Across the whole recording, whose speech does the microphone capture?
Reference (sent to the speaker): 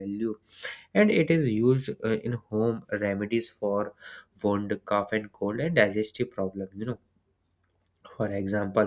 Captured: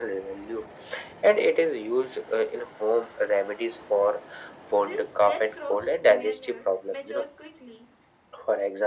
both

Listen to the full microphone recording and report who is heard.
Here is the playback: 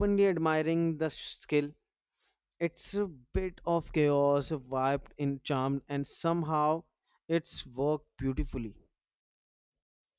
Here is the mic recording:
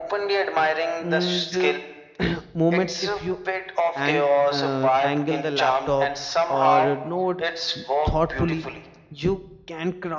both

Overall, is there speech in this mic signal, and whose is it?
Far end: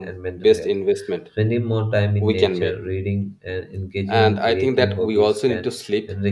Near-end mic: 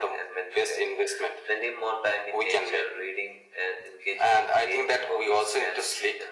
echo only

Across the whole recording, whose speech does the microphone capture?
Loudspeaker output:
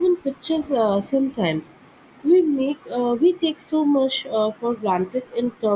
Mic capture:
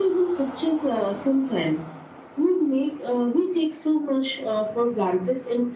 echo only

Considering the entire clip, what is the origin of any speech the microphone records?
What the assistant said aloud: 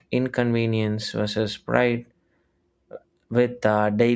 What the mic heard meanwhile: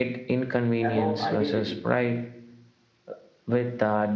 both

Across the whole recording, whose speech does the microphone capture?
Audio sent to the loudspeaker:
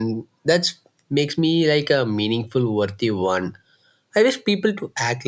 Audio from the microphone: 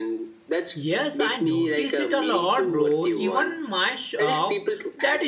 both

